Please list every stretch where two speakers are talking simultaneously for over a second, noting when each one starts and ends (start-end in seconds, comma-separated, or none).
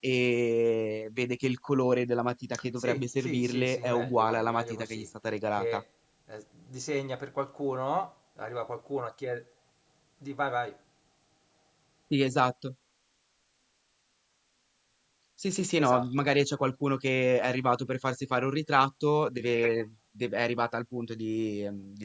2.8-5.1